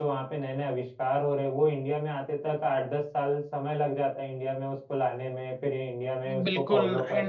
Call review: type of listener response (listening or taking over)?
taking over